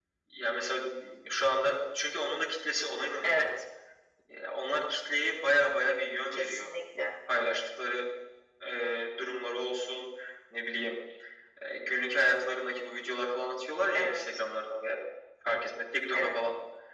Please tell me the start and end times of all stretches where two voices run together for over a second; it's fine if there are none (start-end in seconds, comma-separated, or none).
none